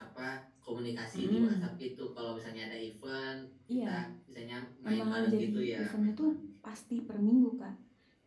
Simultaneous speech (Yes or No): Yes